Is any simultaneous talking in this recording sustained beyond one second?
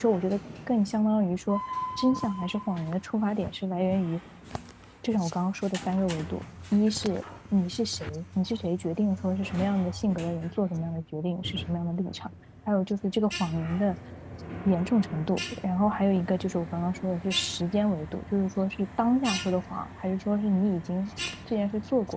No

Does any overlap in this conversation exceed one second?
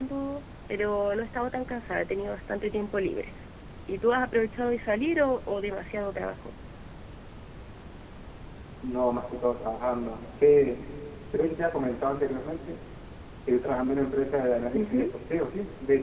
No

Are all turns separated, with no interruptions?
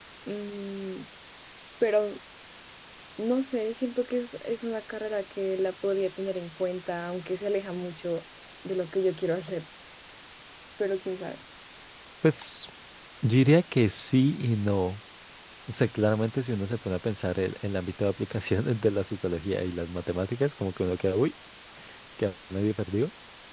Yes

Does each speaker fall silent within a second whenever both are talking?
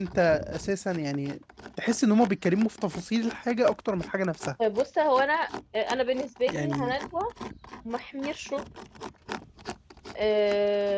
Yes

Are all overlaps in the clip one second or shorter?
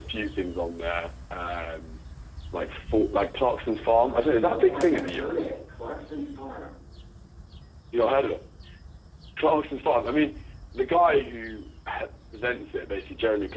No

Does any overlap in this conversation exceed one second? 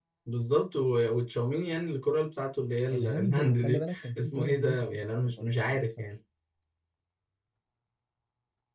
Yes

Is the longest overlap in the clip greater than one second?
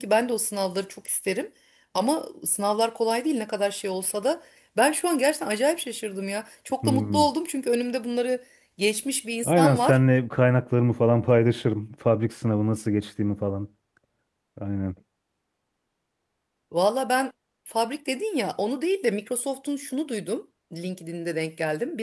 No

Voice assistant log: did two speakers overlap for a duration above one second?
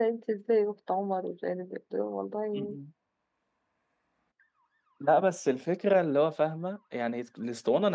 No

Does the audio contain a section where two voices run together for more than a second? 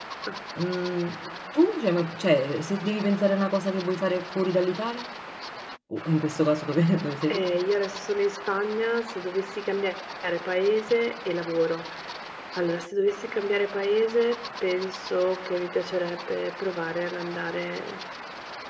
No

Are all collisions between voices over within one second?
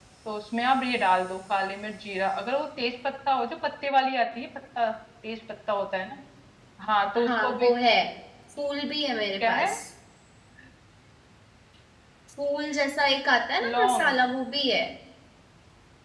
Yes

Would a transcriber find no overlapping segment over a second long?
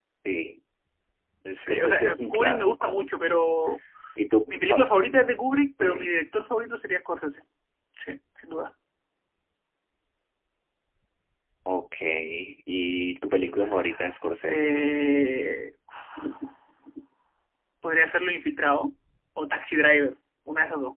No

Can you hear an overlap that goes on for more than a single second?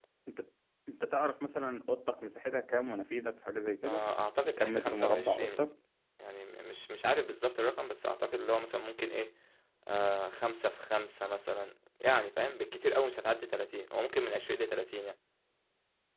Yes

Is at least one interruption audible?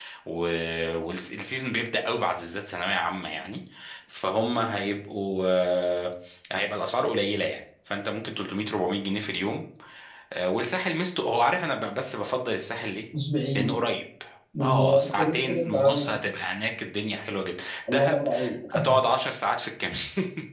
Yes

